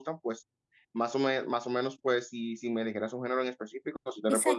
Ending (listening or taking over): taking over